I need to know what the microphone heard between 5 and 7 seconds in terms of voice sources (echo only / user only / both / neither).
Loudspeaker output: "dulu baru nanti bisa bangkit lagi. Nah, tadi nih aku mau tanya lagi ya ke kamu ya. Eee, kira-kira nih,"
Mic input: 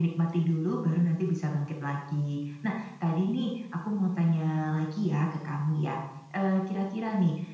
echo only